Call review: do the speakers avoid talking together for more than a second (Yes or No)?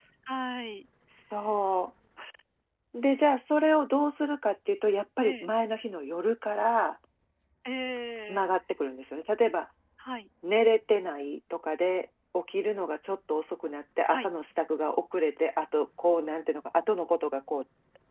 Yes